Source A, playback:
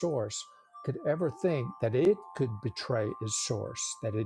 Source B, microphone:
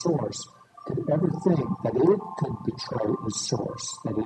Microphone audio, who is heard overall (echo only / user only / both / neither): echo only